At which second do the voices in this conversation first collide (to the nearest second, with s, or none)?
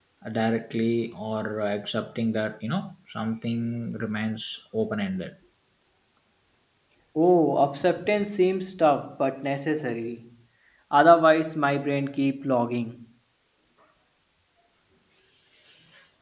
none